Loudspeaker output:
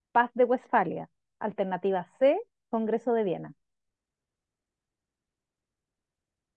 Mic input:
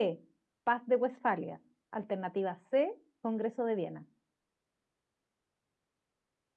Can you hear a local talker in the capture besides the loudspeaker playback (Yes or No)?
No